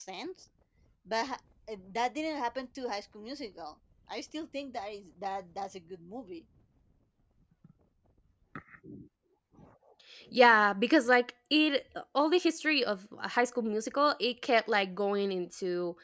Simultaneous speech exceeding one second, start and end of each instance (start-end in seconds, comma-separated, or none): none